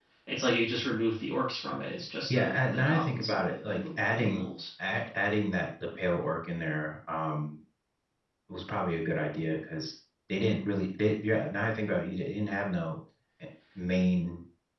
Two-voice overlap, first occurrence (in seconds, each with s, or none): 2.3 s